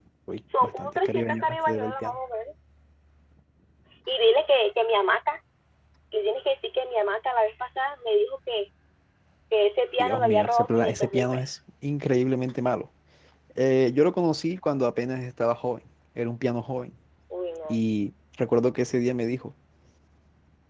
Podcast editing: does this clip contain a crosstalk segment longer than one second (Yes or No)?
Yes